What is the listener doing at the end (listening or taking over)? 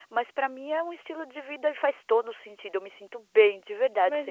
taking over